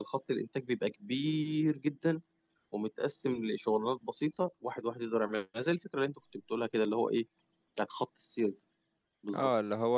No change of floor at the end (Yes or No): No